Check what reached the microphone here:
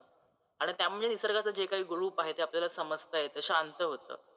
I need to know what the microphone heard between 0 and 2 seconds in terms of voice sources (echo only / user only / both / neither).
echo only